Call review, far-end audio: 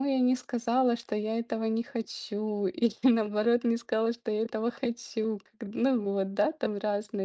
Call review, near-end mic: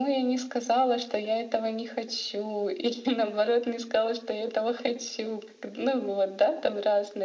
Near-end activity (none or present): none